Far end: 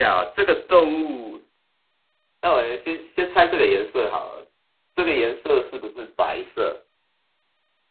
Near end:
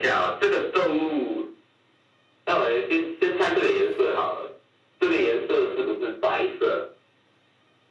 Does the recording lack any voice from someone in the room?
Yes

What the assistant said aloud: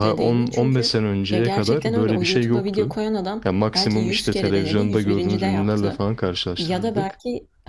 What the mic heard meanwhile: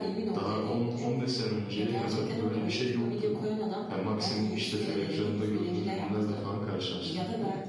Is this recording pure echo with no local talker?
Yes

